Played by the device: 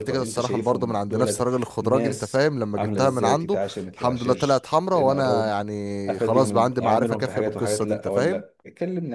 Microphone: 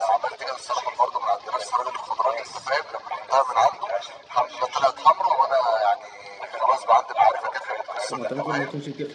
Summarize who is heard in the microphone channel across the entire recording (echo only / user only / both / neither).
both